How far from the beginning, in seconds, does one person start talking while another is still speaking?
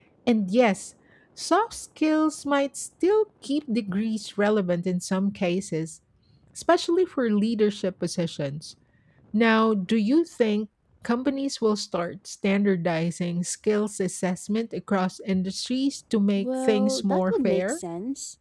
16.4 s

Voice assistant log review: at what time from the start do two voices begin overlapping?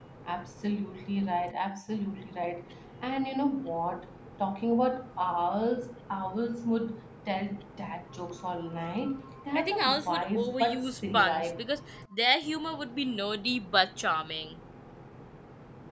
9.5 s

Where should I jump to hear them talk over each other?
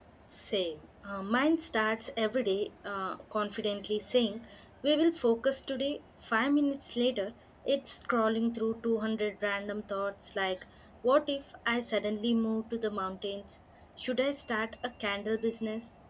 none

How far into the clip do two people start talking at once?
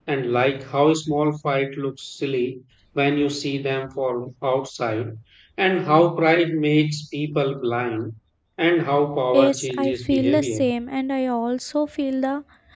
9.3 s

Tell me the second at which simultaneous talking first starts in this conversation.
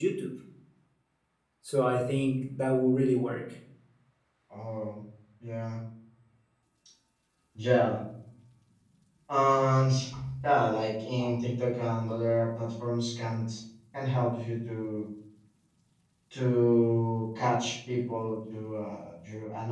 none

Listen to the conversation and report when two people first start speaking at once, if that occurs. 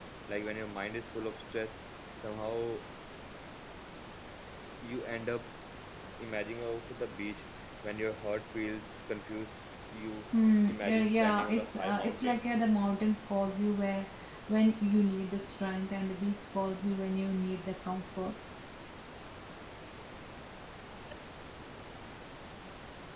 10.7 s

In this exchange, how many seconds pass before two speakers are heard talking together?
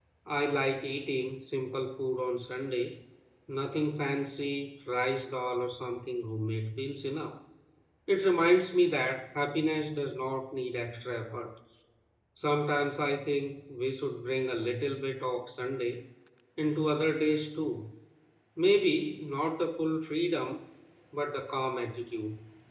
none

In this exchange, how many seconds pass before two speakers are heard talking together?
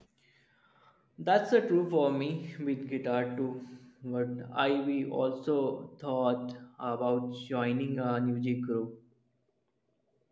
none

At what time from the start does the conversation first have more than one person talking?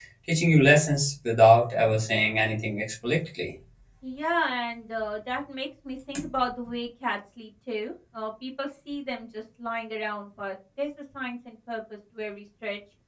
none

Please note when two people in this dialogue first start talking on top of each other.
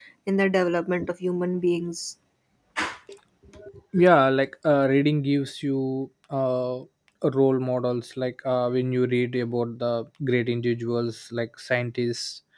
none

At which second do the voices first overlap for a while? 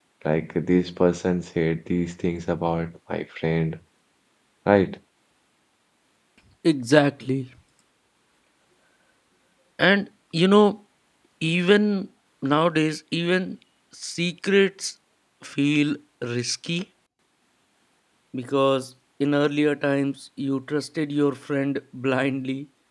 none

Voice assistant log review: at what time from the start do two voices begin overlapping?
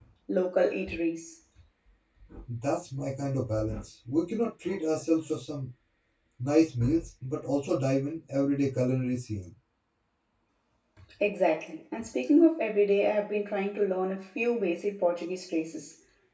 none

